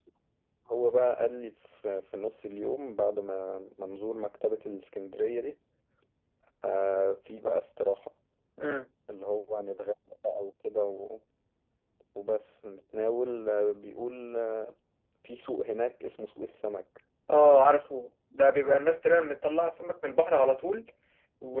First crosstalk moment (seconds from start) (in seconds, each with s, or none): none